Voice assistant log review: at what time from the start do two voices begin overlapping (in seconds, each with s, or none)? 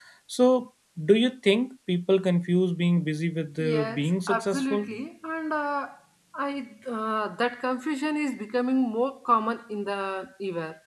3.6 s